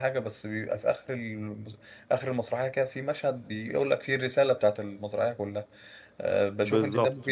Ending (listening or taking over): taking over